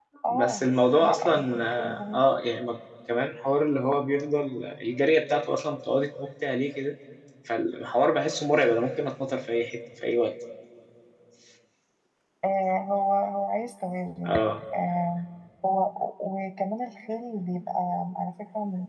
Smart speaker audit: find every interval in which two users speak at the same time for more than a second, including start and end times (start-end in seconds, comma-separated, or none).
1.0-2.2